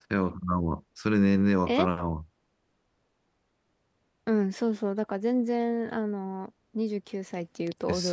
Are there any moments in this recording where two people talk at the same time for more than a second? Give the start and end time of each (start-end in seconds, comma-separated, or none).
none